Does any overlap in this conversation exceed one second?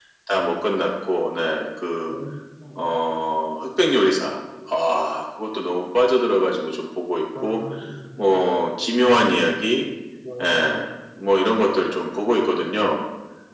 No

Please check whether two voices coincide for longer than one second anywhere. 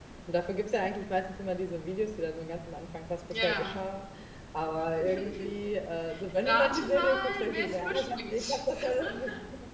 Yes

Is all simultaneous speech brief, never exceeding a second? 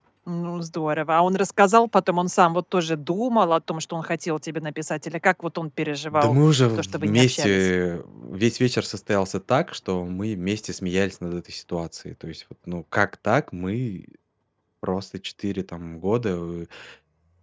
No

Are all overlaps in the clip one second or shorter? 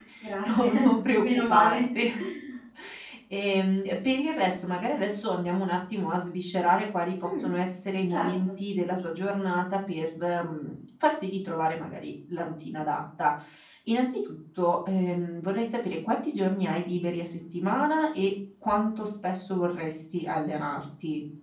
No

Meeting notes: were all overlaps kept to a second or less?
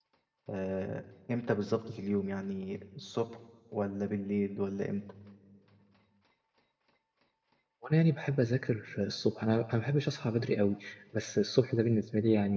Yes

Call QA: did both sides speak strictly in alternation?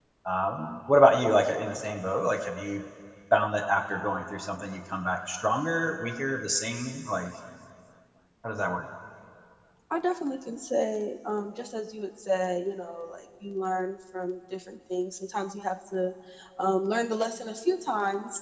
Yes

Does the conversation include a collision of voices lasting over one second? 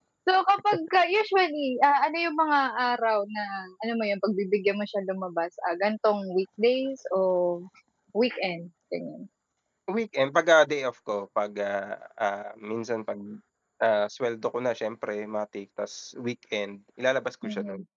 No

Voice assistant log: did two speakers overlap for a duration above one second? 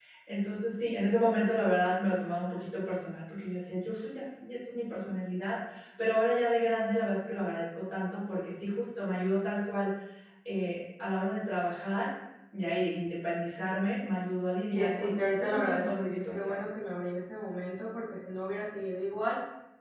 Yes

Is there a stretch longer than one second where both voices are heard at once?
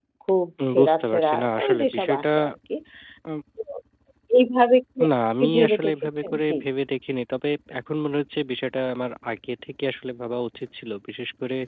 Yes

